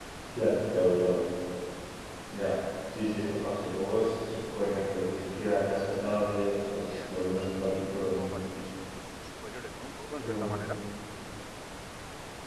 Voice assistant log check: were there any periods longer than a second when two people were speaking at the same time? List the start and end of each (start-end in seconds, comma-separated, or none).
6.9-8.5